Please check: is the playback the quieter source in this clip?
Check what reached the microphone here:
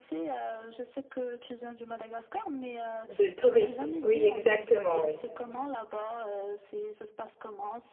Yes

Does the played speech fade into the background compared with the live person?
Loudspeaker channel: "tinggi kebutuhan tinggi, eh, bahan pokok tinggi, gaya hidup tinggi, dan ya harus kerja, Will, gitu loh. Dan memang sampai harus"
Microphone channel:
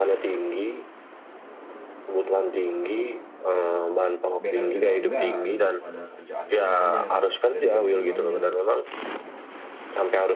No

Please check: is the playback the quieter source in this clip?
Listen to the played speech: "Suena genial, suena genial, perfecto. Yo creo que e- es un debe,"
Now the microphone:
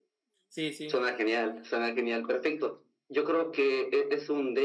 No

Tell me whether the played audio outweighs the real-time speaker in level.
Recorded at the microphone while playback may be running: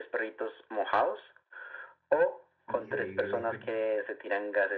Yes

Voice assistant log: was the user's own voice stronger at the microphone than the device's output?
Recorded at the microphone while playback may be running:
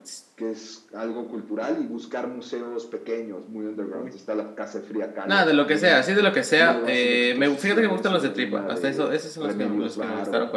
Yes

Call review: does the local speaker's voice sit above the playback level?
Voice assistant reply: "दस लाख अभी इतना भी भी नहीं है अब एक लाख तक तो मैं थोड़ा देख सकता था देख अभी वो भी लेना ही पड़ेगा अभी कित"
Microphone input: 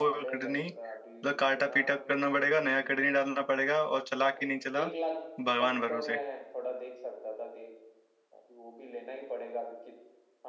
Yes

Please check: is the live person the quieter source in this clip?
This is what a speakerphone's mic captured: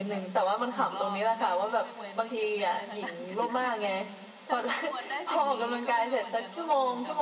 Yes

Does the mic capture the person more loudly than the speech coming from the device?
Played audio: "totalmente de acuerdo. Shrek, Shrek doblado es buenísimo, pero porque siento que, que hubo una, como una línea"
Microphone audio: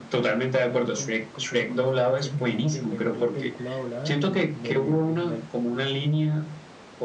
No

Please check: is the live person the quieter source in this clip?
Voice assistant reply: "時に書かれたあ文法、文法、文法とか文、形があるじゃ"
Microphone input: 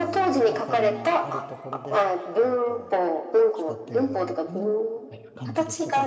Yes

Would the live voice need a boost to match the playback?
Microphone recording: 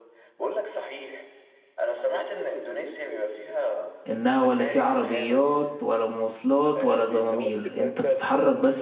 No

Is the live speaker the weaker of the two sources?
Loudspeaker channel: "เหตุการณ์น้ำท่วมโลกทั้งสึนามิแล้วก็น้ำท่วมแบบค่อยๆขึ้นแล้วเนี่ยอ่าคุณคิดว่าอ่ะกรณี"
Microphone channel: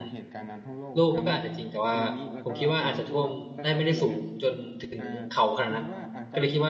No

